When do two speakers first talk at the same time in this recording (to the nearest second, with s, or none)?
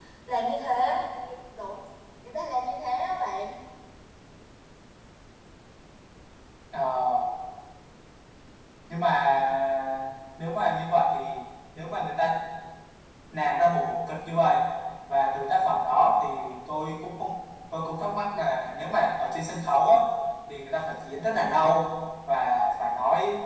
none